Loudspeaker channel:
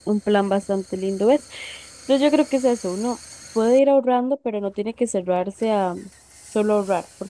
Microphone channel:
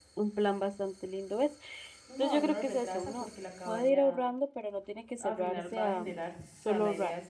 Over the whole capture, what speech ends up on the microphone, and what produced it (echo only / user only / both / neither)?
both